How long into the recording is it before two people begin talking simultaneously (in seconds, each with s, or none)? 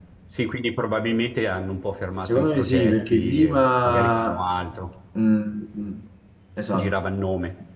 2.2 s